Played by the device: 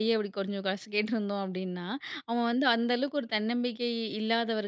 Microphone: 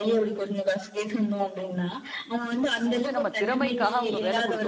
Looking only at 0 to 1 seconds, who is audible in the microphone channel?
echo only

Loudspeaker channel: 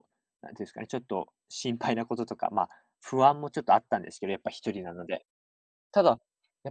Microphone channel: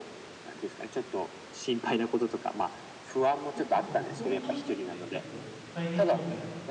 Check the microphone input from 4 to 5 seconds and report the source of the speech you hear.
both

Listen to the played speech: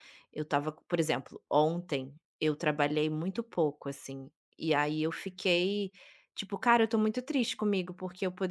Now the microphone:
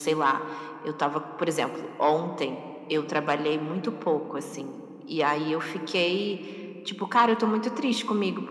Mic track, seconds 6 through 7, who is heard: echo only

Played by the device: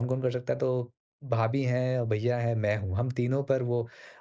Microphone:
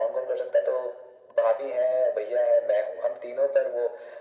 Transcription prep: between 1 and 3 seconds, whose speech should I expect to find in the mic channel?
echo only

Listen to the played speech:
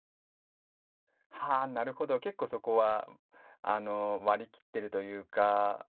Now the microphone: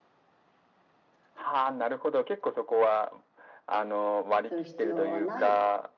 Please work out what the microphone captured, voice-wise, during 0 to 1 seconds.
neither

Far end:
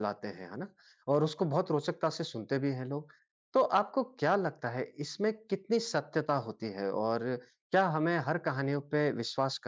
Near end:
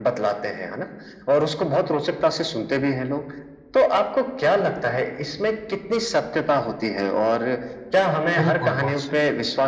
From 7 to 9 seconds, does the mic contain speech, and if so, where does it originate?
both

